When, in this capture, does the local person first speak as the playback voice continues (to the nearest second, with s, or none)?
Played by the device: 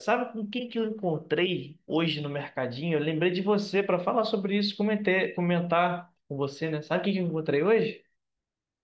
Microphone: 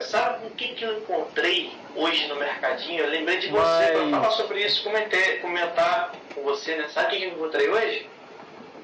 3 s